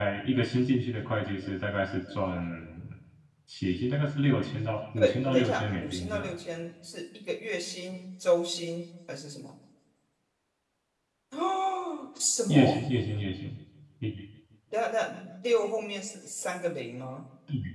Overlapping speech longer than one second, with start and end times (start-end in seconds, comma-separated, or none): 5.0-6.3